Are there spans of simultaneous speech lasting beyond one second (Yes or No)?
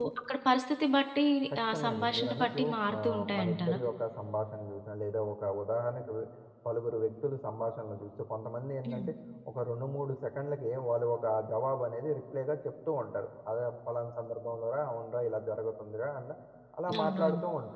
Yes